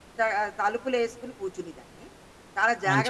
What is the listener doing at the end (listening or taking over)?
listening